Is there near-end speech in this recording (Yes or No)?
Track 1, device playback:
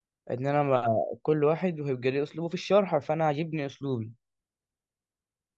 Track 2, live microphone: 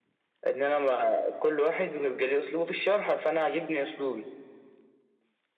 No